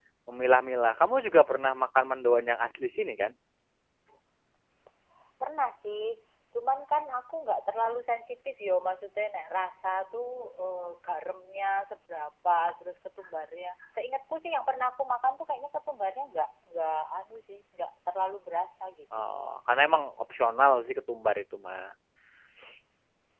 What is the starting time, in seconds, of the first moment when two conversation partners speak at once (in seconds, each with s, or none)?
none